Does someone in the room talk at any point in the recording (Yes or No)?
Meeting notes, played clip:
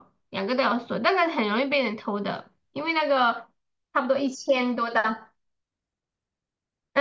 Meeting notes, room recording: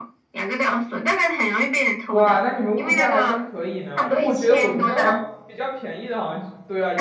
Yes